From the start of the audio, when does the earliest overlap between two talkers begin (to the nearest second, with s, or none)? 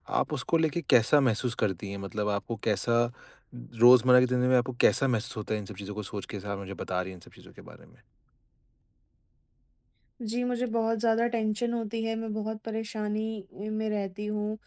none